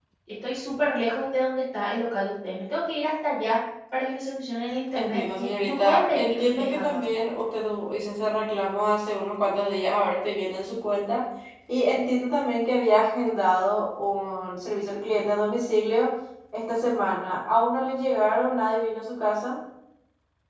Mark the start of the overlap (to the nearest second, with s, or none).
5 s